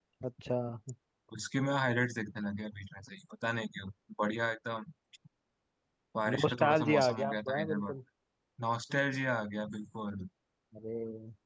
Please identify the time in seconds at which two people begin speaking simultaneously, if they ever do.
6.3 s

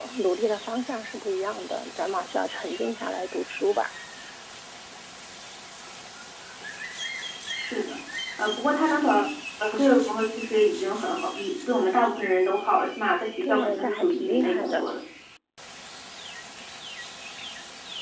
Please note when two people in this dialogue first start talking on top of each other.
13.4 s

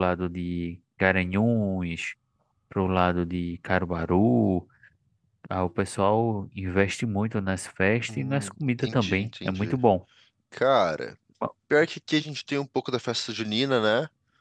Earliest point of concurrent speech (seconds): 8.1 s

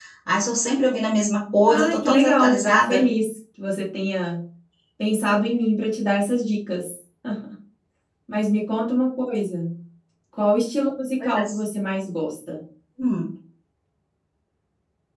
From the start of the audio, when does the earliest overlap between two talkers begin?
1.7 s

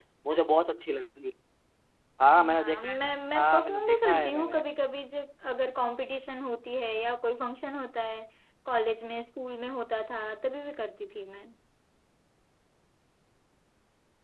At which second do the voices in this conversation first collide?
2.5 s

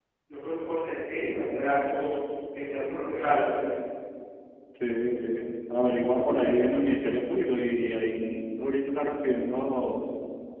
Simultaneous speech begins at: none

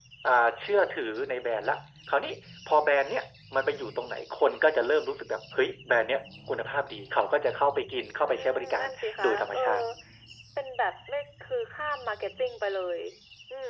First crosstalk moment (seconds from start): 8.1 s

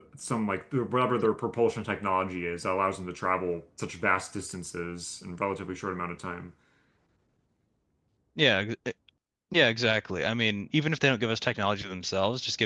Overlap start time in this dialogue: none

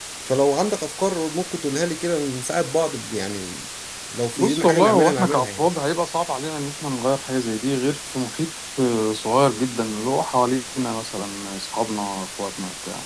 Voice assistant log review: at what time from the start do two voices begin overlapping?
4.4 s

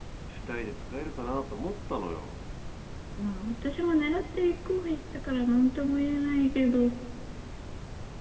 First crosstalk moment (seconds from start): none

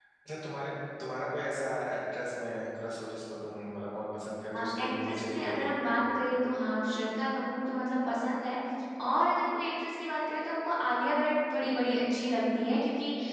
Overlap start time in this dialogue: 4.5 s

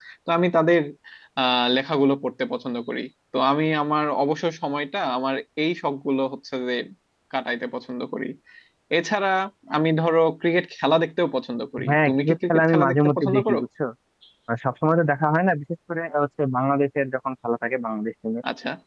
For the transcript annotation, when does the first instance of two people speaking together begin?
11.8 s

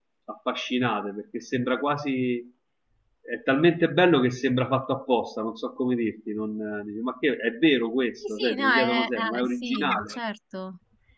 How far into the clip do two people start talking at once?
8.2 s

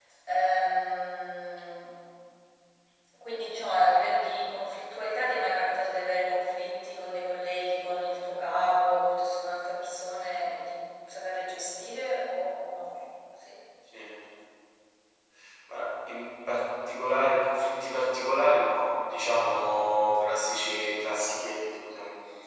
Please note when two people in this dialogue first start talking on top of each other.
none

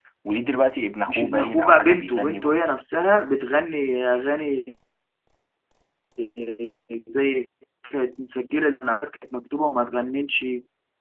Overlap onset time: 1.1 s

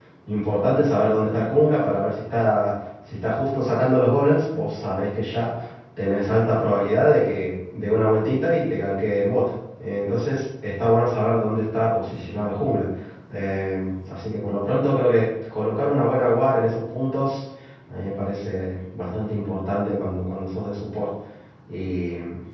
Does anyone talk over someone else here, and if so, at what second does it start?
none

